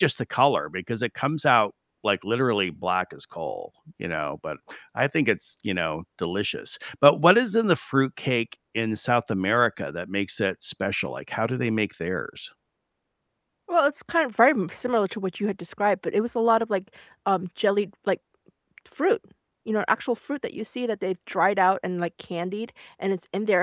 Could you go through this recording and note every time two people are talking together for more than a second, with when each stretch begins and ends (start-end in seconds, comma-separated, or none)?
none